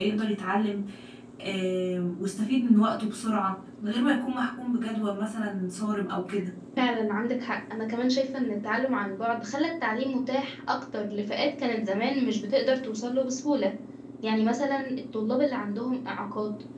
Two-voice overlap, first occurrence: none

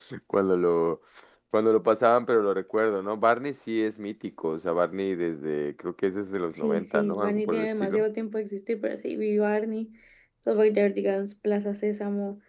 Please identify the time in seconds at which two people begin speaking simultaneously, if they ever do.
6.6 s

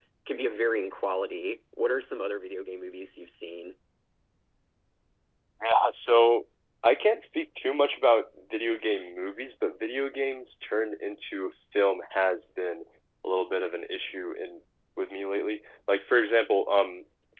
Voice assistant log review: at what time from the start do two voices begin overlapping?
none

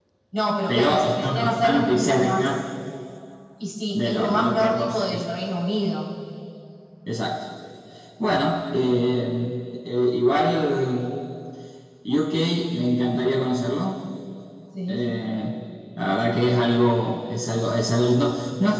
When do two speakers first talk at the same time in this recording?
0.7 s

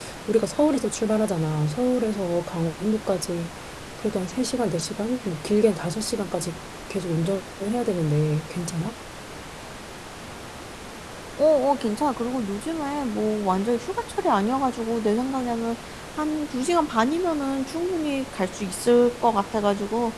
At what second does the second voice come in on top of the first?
none

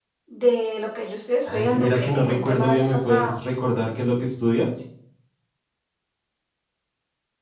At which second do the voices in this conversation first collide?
1.4 s

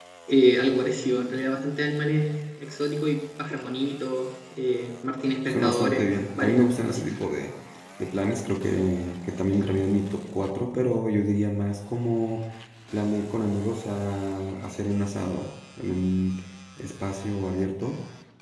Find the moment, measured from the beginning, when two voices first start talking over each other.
5.5 s

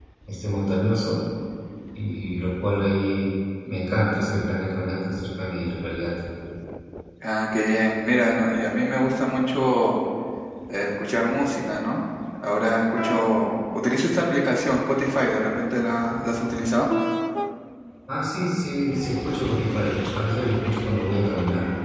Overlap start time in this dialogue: none

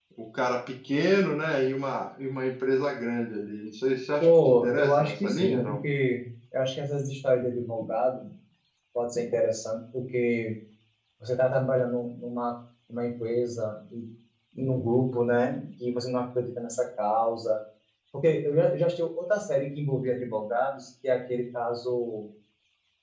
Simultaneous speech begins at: 4.2 s

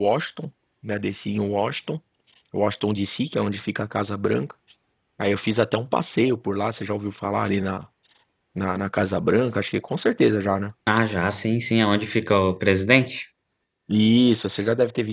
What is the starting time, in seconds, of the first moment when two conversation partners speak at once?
none

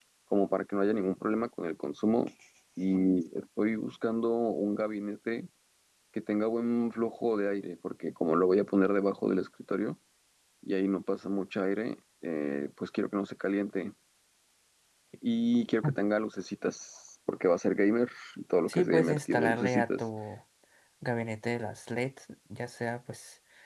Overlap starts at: 18.7 s

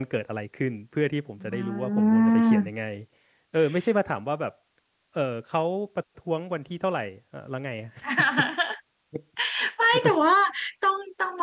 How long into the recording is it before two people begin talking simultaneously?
1.5 s

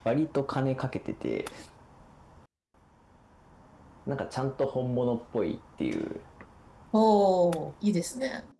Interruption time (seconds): none

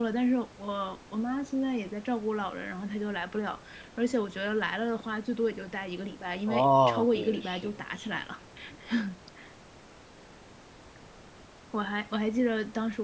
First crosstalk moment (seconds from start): 6.5 s

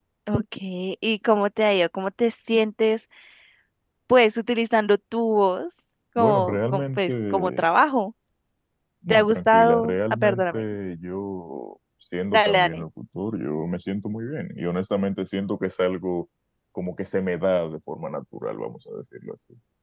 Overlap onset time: 6.2 s

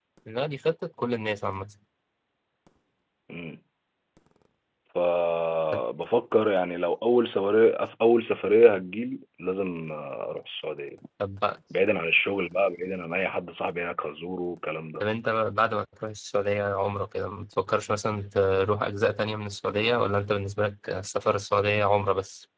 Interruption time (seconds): none

